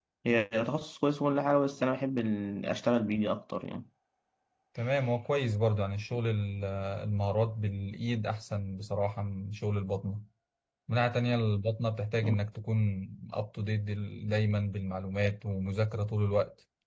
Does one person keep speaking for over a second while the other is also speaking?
No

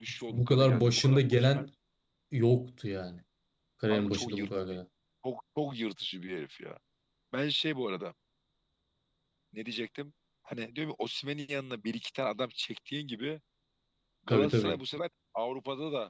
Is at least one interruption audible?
Yes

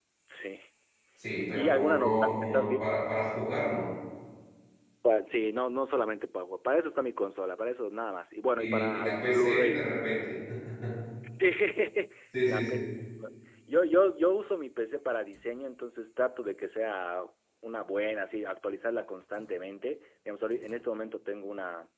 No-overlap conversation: No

